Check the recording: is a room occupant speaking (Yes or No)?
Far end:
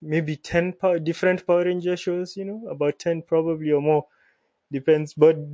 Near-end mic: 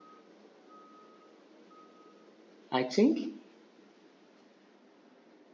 Yes